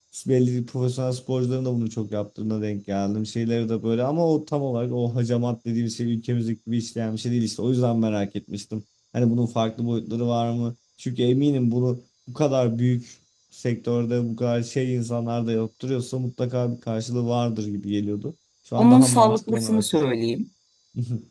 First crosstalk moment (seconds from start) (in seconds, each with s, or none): 18.8 s